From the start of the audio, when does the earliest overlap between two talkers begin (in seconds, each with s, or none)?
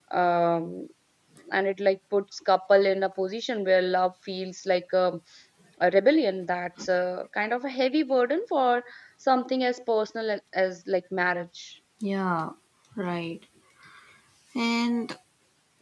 none